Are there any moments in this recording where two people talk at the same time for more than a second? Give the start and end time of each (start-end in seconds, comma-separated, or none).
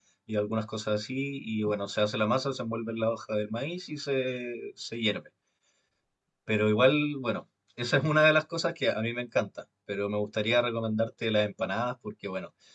none